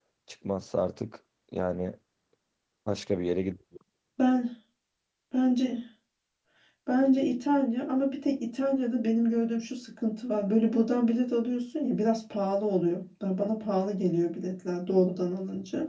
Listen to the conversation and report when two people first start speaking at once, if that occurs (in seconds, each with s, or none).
none